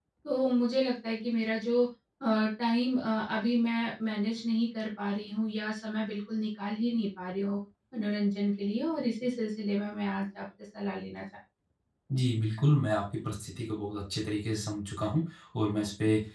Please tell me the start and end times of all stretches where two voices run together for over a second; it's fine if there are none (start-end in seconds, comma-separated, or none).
none